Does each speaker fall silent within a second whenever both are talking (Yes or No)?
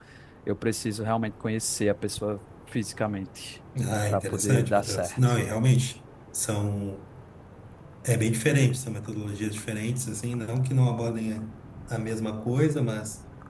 No